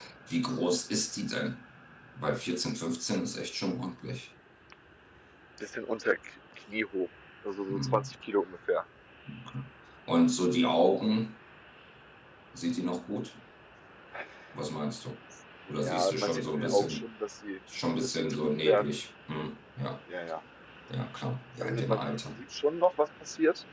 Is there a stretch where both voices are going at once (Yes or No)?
Yes